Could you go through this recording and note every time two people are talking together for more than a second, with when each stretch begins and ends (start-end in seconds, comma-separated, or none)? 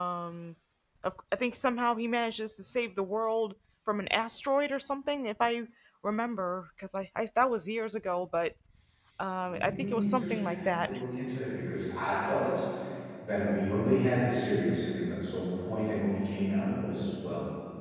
9.5-10.9